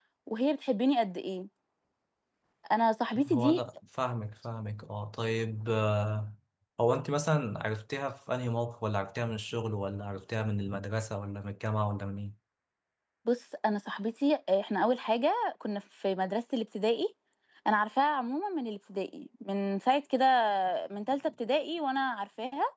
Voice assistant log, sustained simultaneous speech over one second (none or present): none